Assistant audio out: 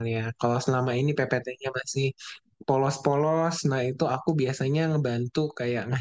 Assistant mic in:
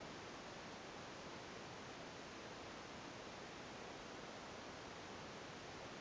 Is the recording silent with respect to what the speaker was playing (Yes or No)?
Yes